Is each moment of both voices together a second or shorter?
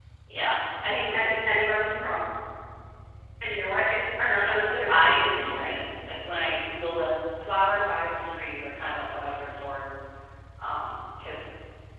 No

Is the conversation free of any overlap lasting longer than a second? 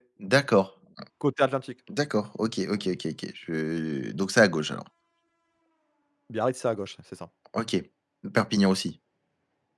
Yes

